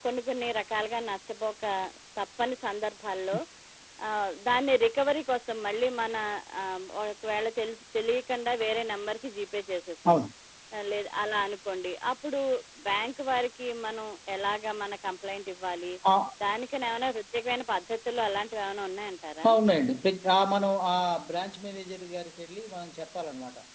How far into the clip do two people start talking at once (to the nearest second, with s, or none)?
none